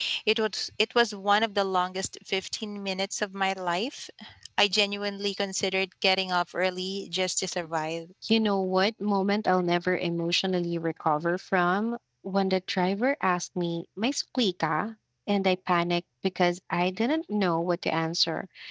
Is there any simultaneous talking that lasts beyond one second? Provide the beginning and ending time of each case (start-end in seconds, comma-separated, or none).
none